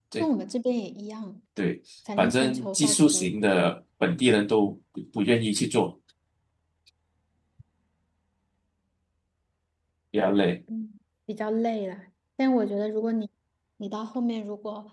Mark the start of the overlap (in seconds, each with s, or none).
2.2 s